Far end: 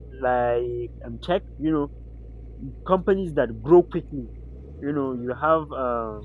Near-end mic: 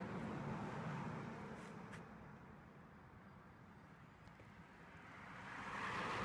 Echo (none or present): none